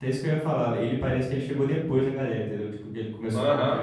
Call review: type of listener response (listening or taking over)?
taking over